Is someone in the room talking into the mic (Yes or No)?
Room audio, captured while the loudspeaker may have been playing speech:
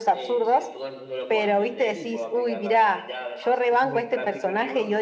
Yes